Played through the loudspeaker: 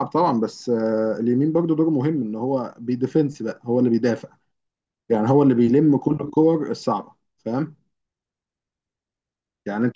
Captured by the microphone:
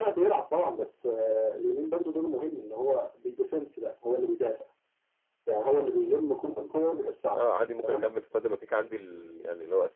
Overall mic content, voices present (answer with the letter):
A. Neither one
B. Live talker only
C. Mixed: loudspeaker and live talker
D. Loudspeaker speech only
C